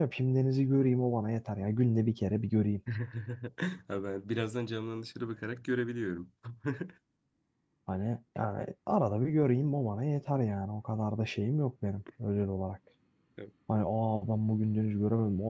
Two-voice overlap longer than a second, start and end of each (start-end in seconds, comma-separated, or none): none